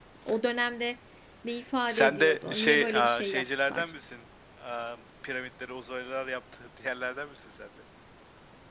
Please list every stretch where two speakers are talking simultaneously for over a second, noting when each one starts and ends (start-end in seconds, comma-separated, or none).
1.9-3.9